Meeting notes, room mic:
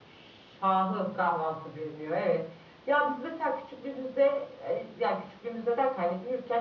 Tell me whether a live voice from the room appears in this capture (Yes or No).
No